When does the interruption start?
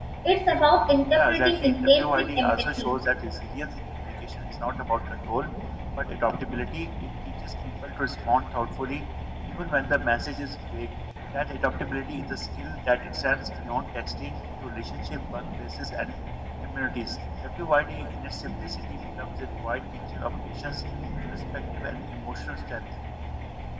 1.1 s

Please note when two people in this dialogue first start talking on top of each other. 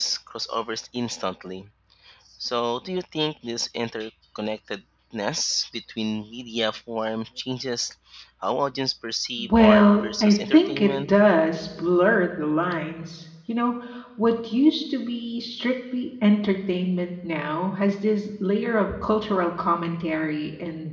9.4 s

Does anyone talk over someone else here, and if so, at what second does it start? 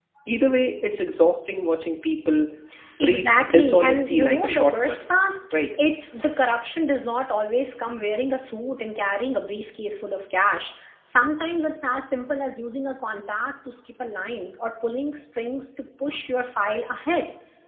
3.0 s

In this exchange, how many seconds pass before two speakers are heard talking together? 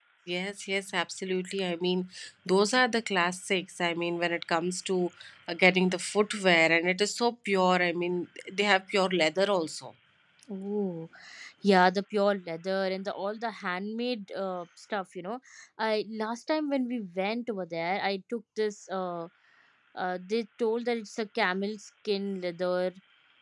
none

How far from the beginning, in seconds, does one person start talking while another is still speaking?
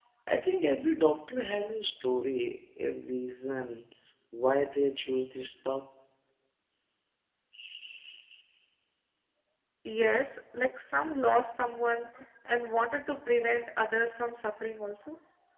none

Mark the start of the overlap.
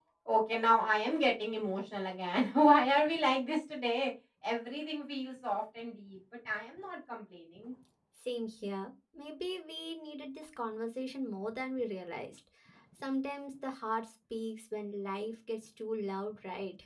none

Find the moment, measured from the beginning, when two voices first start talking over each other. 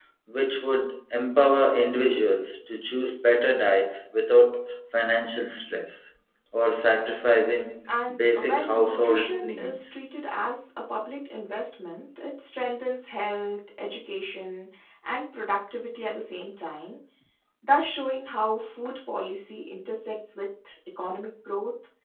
7.9 s

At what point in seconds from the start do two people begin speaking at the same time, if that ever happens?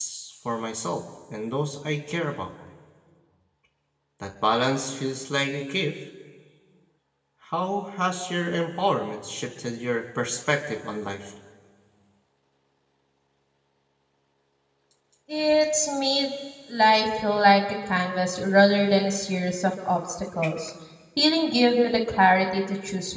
none

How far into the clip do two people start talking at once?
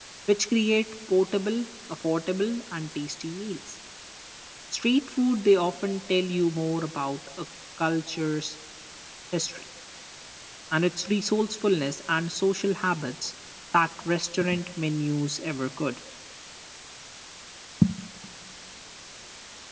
none

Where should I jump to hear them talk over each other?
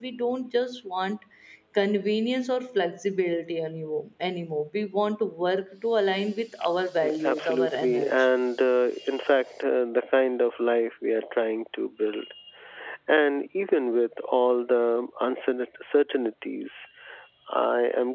7.0 s

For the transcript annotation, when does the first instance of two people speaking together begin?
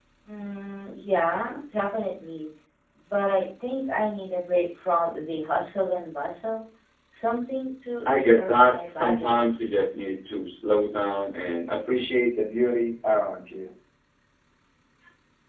8.0 s

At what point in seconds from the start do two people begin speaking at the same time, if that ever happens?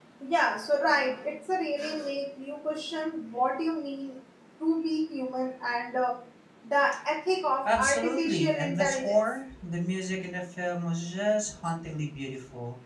7.6 s

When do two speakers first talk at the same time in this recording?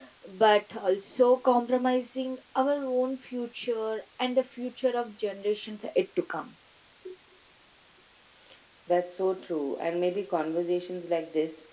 none

